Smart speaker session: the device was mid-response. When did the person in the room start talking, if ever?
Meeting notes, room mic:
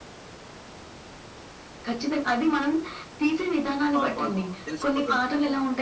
3.9 s

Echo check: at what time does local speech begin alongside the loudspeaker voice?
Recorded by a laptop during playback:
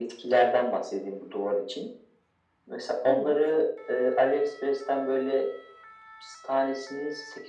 3.0 s

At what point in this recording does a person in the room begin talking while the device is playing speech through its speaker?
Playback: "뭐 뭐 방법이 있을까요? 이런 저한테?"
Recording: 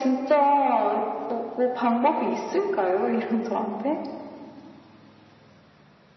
none

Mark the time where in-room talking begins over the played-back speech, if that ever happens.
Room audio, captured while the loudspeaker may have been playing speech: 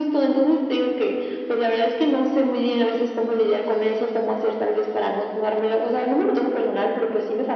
none

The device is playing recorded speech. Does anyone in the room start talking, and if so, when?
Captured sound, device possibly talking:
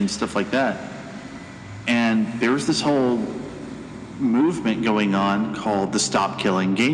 none

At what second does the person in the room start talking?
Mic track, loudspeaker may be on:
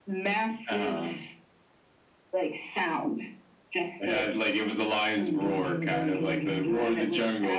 none

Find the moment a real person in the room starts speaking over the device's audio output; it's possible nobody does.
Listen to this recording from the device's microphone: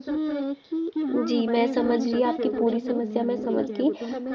1.1 s

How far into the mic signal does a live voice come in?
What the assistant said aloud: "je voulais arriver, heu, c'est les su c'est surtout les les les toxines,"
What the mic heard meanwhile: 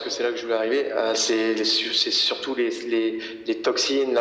none

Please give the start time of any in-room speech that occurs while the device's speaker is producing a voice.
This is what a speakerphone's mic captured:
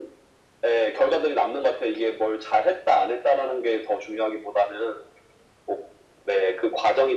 none

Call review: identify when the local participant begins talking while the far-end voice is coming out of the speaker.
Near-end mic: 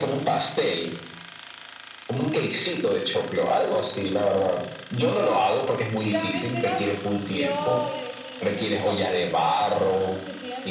6.0 s

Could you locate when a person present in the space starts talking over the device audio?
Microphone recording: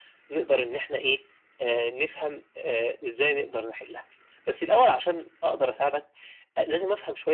none

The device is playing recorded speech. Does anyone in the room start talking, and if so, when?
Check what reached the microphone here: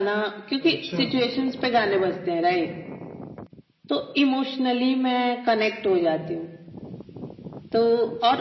0.7 s

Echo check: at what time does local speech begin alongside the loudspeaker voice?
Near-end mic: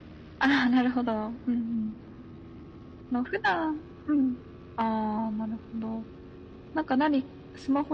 none

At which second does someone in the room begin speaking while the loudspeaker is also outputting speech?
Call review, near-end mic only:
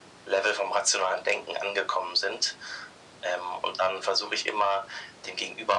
none

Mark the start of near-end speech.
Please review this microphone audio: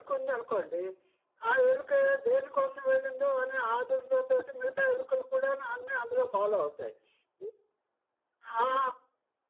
none

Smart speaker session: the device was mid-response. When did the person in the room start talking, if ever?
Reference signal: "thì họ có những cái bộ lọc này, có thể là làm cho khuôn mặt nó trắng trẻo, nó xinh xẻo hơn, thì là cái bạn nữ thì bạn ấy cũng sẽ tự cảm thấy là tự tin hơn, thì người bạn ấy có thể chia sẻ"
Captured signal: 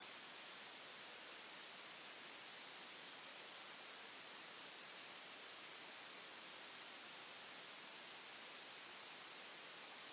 none

